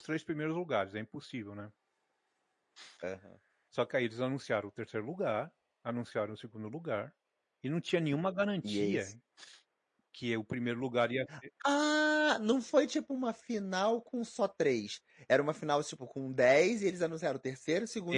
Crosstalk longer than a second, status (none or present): none